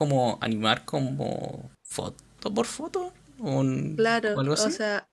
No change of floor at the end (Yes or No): No